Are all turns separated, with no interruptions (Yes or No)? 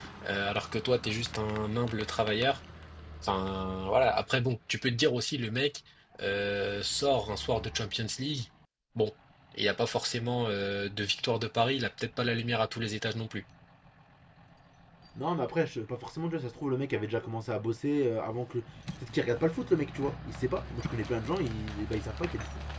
Yes